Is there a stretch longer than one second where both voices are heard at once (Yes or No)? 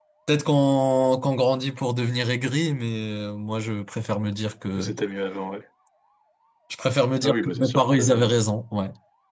Yes